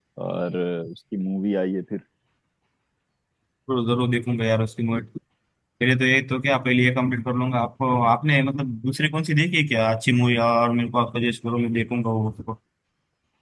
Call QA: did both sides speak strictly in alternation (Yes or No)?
Yes